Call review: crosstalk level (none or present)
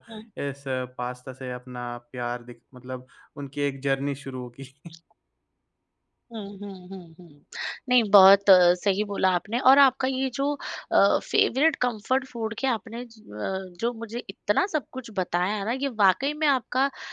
none